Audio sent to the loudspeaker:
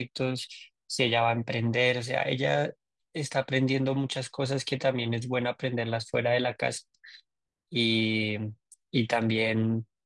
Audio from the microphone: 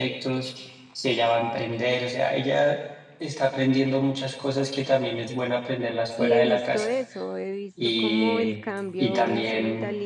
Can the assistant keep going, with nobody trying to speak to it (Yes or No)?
No